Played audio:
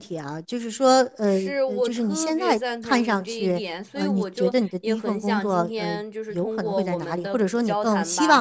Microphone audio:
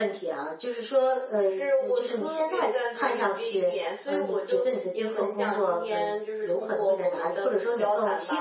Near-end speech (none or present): none